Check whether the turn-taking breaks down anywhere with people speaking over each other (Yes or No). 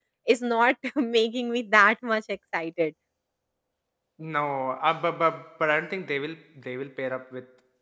No